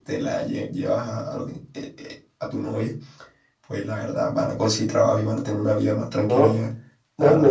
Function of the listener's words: taking over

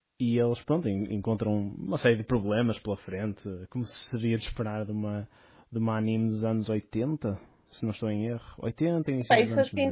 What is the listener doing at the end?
taking over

